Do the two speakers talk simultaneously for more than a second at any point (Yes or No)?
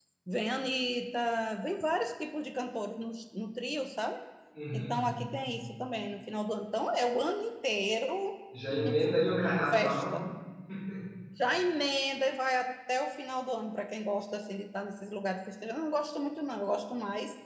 Yes